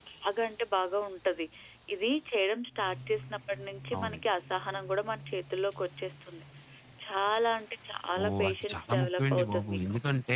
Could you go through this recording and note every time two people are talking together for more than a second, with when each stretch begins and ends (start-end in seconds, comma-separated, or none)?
8.2-9.8